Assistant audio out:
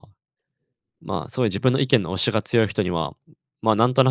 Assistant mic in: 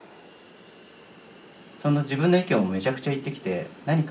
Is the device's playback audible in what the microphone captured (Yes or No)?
No